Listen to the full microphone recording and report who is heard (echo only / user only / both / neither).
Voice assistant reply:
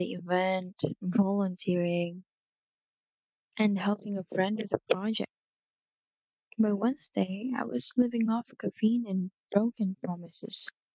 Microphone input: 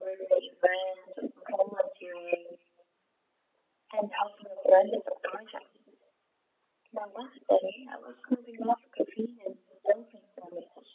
echo only